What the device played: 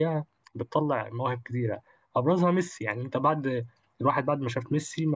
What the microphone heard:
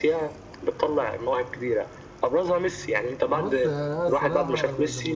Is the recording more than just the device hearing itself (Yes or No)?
Yes